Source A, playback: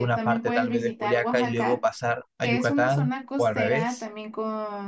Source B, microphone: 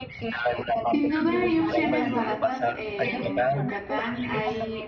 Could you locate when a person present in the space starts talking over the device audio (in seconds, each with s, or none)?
0.9 s